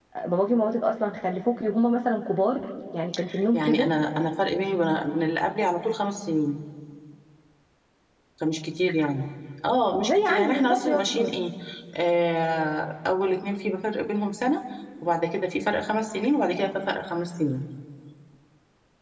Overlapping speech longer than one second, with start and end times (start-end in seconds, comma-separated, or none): 10.0-11.3